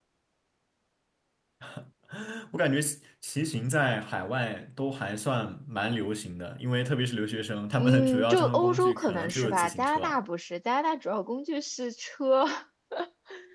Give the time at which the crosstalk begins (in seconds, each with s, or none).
7.8 s